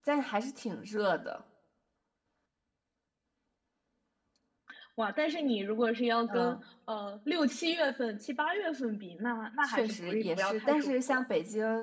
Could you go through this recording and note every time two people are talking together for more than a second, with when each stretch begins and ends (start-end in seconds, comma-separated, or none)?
9.7-11.2